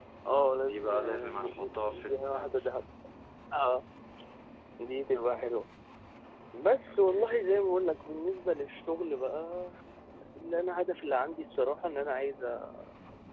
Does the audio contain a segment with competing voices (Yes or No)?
Yes